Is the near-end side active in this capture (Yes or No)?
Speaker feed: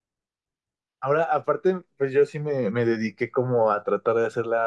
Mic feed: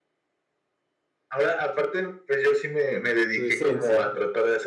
Yes